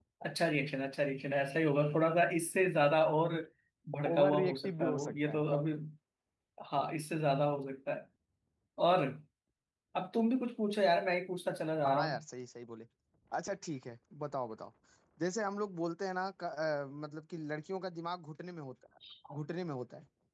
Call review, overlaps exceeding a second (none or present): present